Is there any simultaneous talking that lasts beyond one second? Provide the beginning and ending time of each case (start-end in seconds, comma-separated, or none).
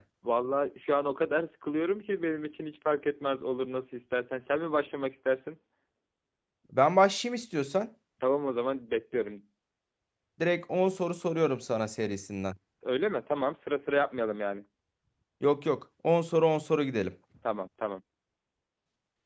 none